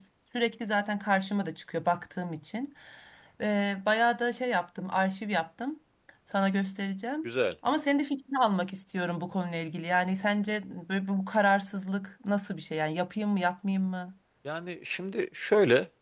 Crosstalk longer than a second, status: none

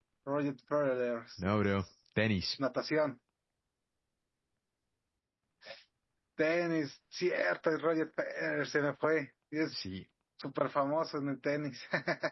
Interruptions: none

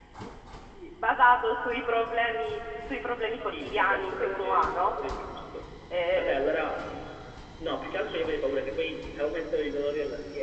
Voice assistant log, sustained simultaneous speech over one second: present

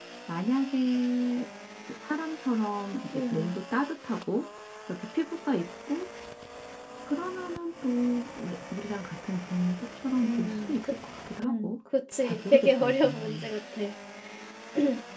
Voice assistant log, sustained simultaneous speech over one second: present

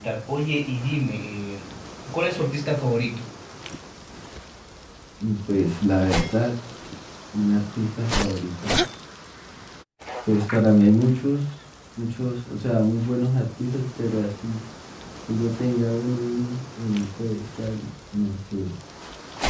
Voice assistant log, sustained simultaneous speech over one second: none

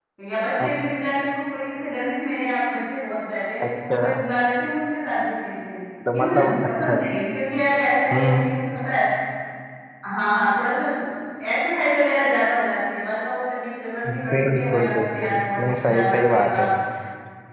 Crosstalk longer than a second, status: present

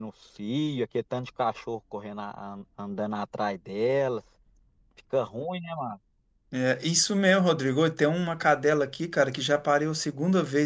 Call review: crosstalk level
none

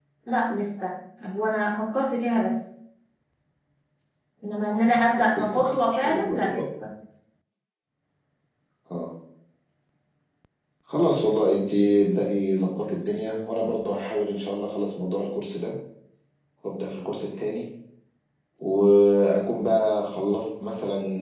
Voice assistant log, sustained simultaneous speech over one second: present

